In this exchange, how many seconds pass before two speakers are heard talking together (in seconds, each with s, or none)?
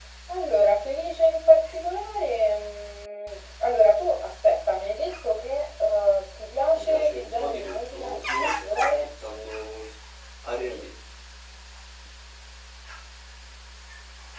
6.7 s